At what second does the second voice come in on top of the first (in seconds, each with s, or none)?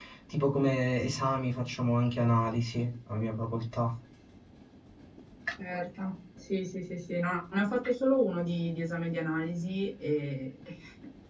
none